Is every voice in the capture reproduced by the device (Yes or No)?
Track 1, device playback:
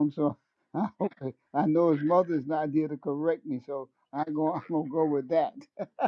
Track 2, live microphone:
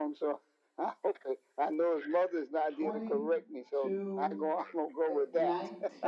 No